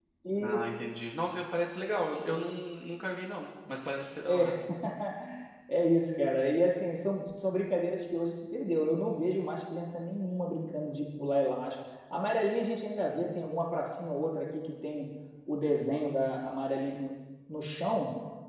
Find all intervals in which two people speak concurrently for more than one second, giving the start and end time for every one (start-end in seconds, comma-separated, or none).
none